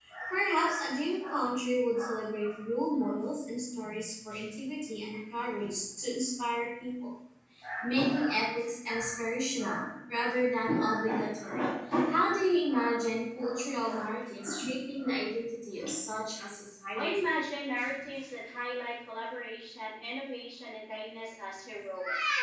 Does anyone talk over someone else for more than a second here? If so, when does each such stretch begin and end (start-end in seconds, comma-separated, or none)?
none